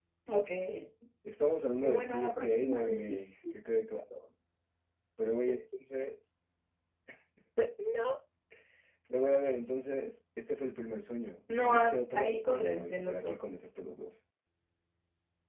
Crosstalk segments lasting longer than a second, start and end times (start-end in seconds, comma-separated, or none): 1.8-3.2, 11.6-13.3